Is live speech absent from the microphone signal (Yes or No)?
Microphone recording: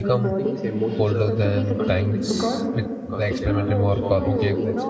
No